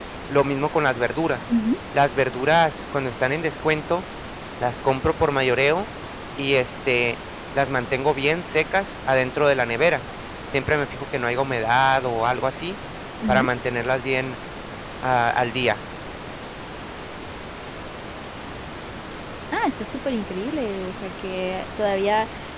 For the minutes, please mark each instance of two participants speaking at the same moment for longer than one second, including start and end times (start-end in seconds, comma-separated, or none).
none